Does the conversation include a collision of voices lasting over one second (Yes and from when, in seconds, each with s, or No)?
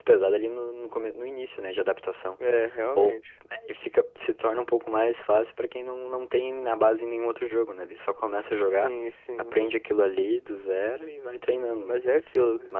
No